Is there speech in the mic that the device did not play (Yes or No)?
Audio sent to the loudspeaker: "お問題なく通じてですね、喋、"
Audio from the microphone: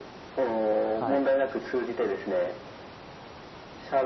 Yes